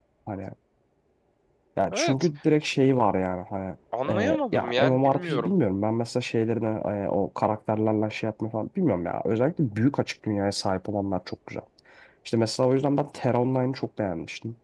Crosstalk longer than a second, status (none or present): present